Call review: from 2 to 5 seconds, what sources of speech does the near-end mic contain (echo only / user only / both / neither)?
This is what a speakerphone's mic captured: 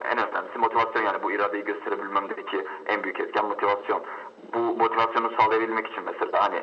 echo only